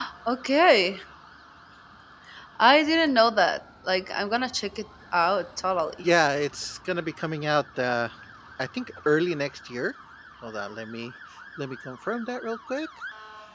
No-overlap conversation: Yes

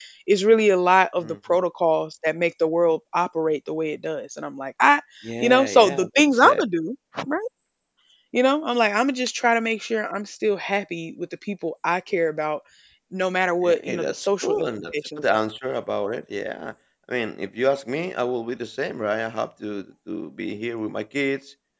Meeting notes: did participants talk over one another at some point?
Yes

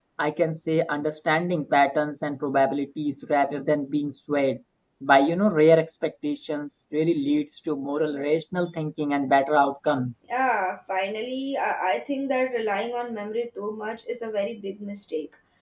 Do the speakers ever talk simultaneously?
No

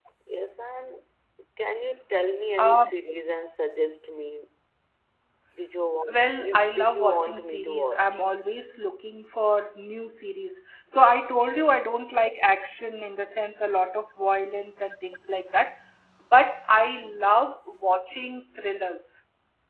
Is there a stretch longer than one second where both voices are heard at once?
Yes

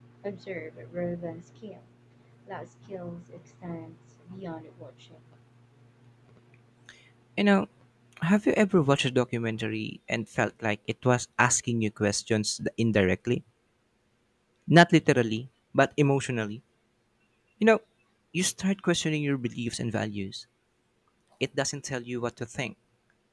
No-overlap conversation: Yes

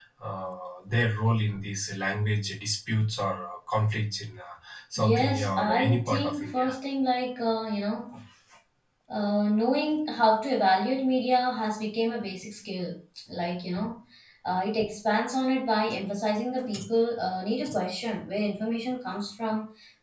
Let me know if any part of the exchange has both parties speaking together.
Yes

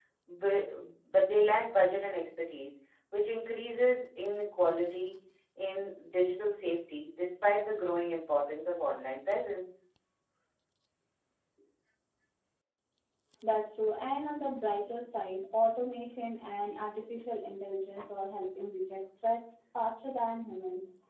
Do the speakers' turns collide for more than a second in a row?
No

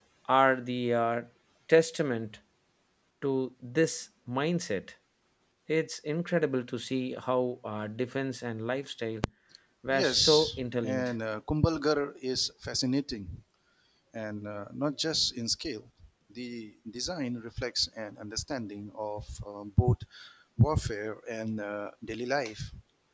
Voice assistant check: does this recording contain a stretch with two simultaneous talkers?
Yes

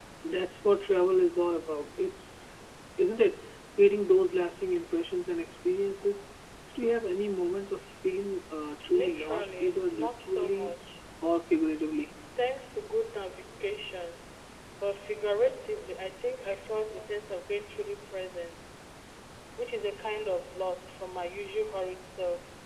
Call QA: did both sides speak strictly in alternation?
No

